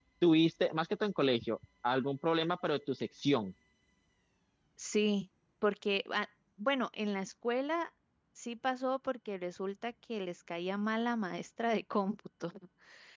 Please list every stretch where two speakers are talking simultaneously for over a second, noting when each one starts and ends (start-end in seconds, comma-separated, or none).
none